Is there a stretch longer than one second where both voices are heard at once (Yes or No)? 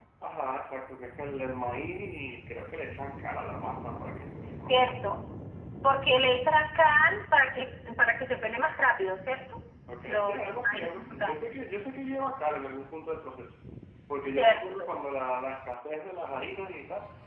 Yes